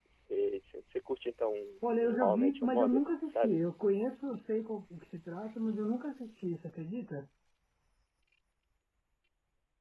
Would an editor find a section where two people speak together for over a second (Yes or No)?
Yes